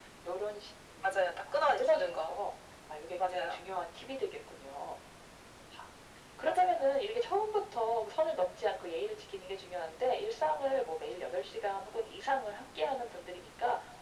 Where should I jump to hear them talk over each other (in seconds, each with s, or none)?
1.0 s